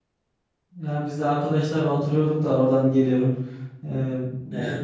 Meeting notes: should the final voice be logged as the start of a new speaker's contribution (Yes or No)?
No